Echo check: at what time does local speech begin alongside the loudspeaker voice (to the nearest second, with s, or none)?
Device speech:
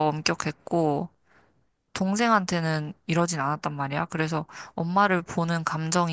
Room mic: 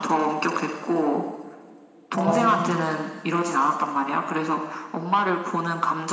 2 s